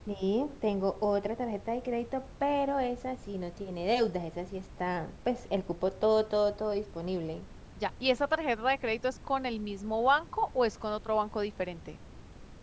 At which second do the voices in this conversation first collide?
none

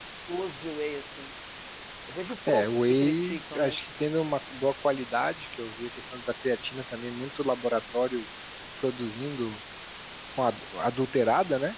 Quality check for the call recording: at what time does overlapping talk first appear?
2.5 s

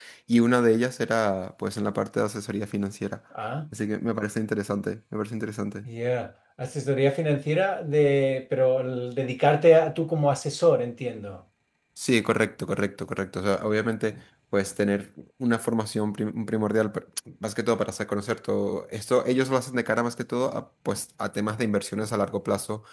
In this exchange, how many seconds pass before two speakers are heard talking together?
none

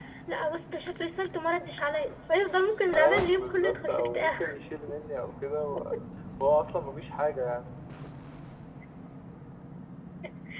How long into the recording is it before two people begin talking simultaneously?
2.9 s

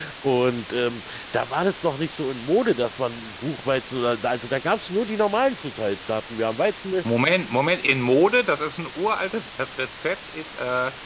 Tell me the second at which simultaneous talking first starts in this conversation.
none

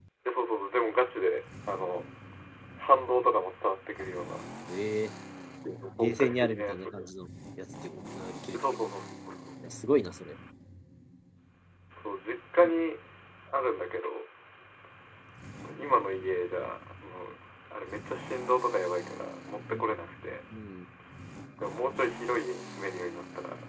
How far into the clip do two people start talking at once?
5.7 s

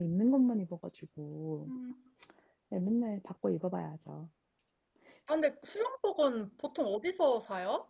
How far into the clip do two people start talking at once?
none

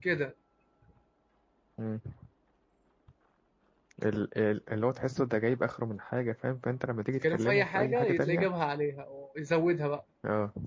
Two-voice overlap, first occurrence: 7.2 s

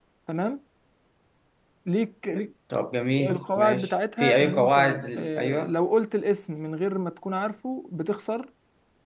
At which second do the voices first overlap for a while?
3.2 s

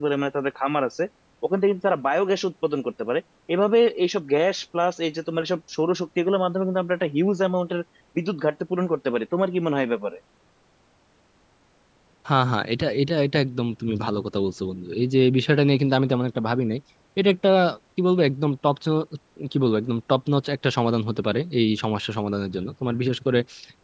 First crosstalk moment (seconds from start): none

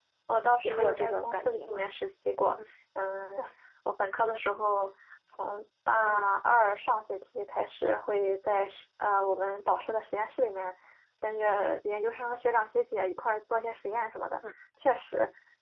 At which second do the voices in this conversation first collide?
0.6 s

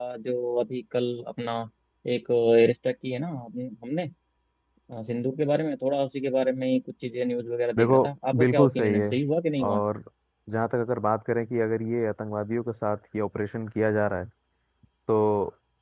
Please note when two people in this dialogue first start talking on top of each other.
7.8 s

